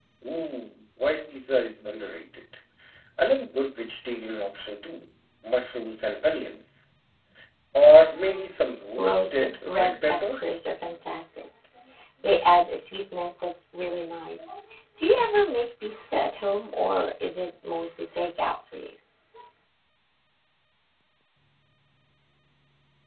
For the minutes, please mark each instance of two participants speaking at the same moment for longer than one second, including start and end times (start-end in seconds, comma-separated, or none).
8.9-10.5